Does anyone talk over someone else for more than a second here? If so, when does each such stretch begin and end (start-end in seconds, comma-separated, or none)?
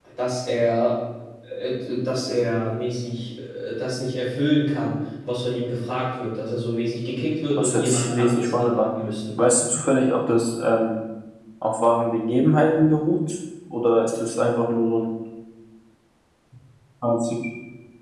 7.5-8.8